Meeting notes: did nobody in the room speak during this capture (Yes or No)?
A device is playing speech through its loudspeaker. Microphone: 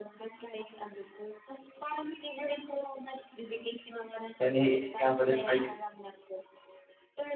No